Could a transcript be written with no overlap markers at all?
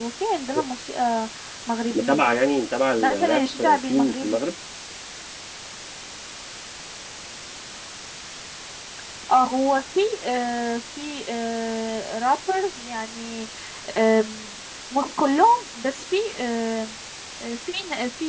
No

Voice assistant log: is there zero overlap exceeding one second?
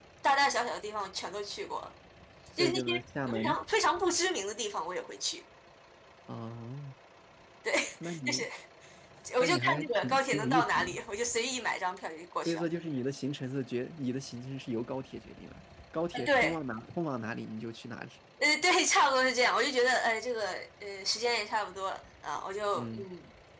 No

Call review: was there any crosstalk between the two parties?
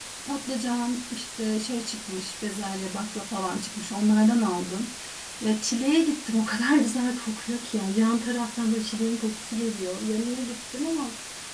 No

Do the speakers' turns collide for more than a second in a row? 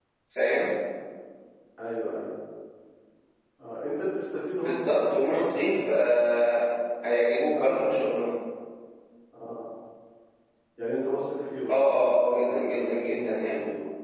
Yes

